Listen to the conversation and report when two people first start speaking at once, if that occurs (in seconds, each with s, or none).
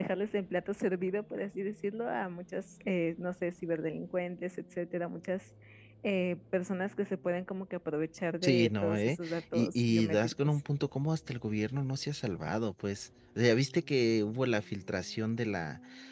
8.4 s